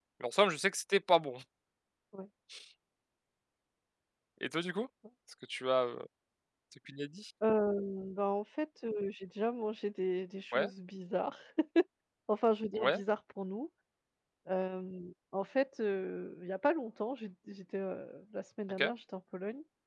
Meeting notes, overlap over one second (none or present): none